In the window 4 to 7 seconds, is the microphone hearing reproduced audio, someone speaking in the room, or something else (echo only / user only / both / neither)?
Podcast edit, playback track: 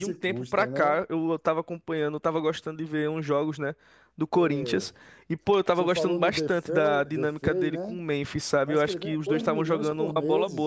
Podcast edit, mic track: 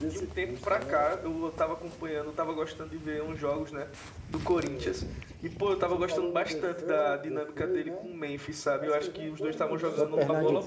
echo only